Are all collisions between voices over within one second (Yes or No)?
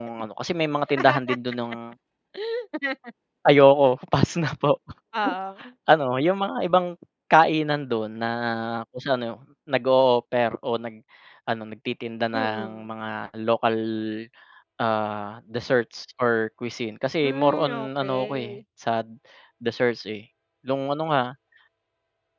No